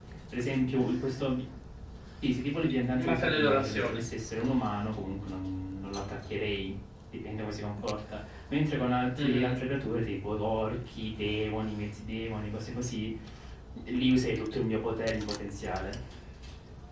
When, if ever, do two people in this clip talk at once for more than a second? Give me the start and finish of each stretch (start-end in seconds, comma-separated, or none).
2.7-4.0